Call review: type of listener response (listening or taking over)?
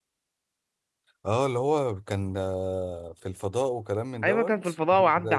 taking over